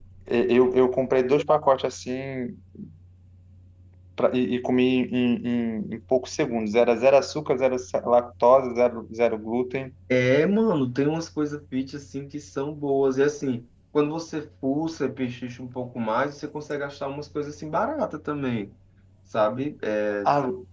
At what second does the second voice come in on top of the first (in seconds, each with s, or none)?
none